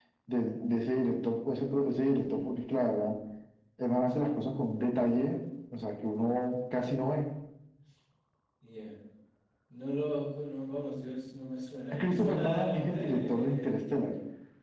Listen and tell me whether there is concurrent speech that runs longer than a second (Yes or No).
Yes